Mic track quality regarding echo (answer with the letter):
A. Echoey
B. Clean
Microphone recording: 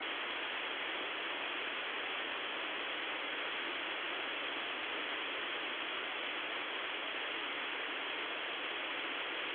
B